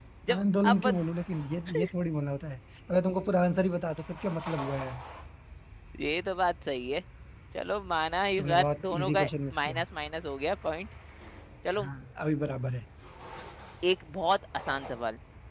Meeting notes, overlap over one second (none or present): present